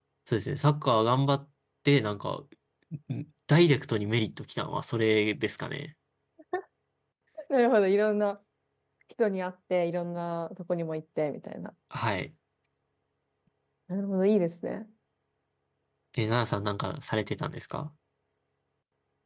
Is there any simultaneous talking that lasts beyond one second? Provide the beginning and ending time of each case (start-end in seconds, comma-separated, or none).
none